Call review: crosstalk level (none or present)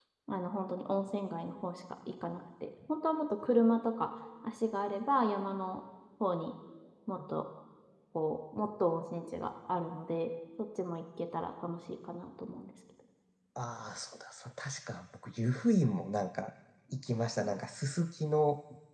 none